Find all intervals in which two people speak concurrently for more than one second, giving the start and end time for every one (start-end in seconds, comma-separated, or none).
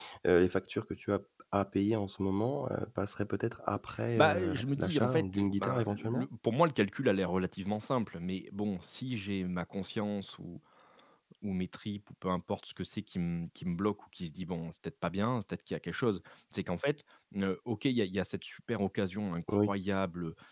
4.2-6.2